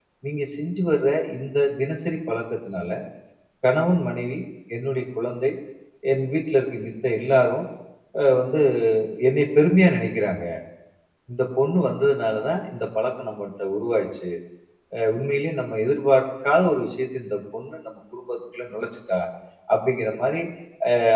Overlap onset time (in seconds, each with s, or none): none